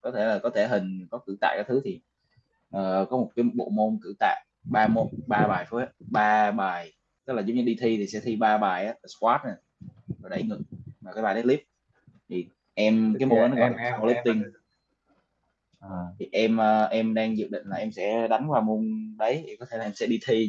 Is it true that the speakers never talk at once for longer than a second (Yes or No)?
No